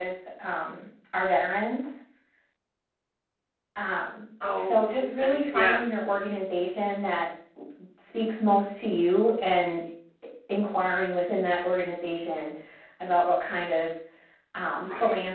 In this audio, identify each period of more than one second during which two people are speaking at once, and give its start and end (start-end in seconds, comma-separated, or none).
4.6-5.8